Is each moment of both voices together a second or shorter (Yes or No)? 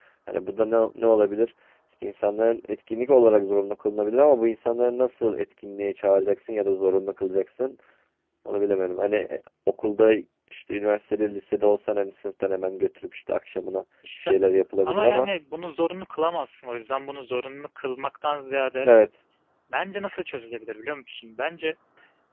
Yes